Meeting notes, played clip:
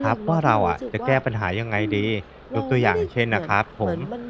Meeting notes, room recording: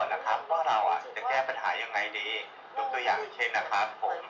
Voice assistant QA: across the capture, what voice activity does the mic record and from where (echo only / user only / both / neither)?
echo only